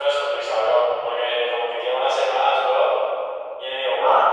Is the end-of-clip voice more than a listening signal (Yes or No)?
No